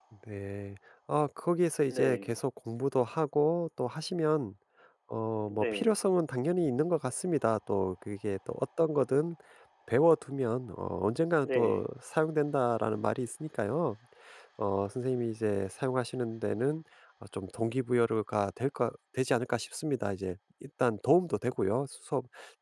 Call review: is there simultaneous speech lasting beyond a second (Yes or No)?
No